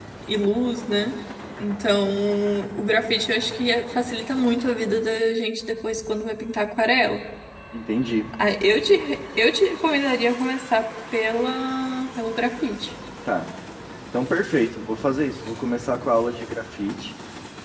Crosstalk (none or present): none